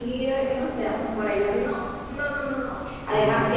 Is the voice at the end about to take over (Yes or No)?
No